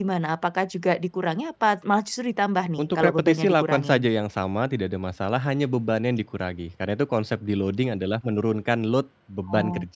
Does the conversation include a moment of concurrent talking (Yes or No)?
Yes